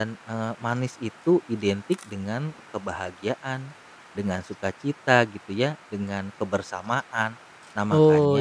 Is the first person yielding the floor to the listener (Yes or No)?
Yes